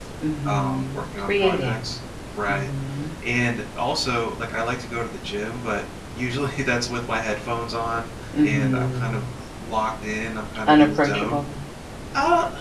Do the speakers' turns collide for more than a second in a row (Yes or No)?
Yes